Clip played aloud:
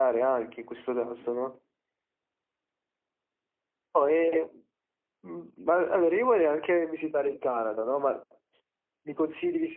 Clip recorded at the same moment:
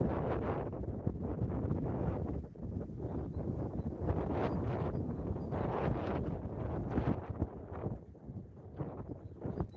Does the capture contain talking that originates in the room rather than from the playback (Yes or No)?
No